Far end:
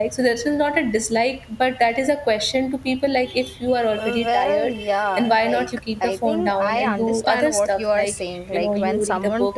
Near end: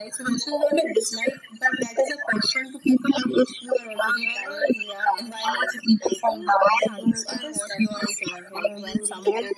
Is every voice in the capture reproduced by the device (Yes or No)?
Yes